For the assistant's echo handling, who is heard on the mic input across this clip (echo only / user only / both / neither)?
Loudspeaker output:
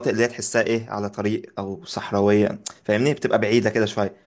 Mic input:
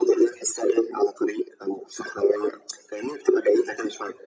echo only